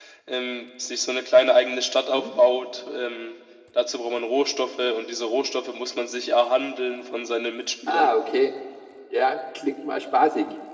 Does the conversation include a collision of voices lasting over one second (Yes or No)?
No